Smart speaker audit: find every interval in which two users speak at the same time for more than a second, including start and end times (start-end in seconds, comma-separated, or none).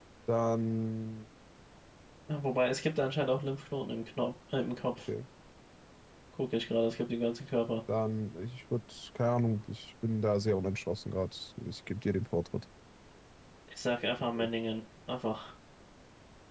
none